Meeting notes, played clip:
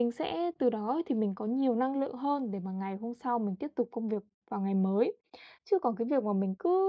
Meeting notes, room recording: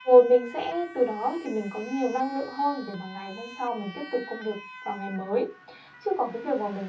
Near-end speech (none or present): none